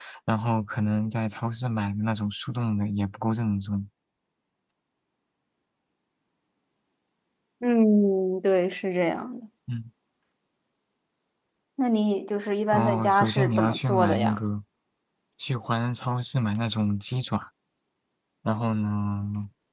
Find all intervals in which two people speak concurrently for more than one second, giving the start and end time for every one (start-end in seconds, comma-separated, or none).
12.7-14.4